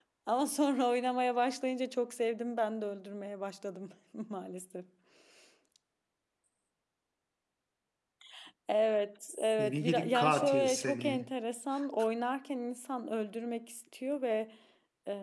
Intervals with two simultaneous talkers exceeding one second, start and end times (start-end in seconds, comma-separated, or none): 9.3-11.2